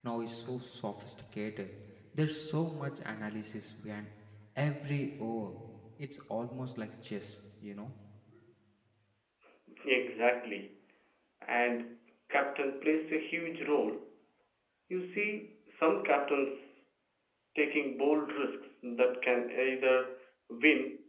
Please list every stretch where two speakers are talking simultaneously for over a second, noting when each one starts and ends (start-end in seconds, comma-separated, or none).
none